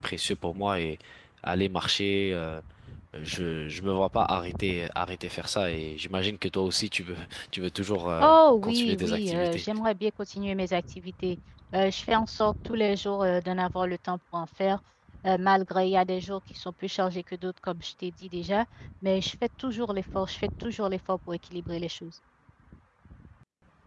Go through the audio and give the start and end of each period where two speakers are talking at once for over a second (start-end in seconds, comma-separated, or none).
8.2-9.7